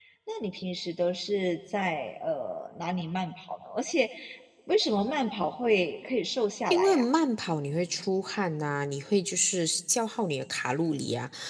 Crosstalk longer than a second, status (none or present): none